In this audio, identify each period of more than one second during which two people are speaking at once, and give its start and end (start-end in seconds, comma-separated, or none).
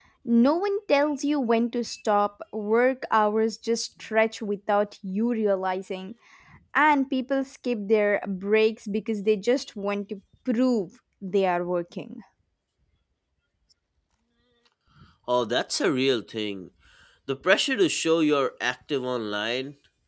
none